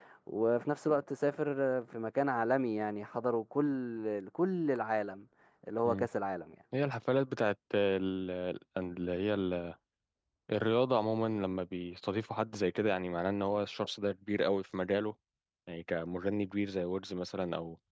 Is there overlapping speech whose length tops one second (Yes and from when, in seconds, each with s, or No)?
No